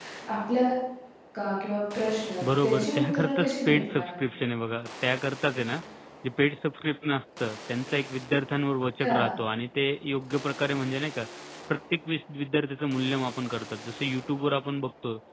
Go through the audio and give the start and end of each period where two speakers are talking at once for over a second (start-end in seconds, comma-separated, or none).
2.6-4.1